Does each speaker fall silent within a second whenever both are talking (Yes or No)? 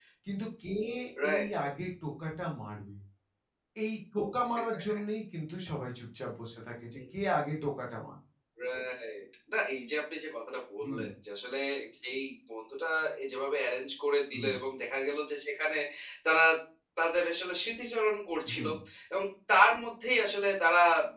Yes